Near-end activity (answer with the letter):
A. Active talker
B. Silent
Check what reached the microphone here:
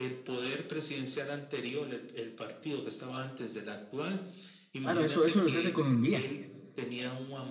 A